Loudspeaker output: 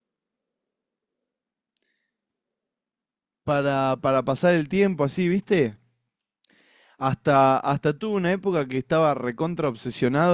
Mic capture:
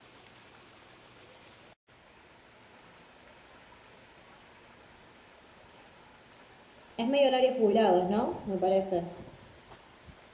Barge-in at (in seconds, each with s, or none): 7.0 s